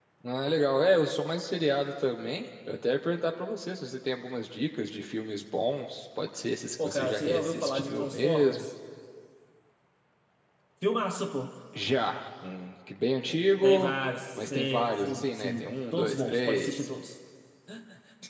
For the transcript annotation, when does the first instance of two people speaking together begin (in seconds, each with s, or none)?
6.8 s